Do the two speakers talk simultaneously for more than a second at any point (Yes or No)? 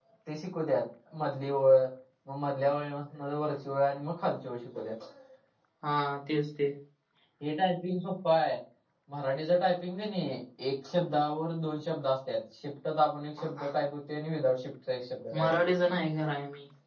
No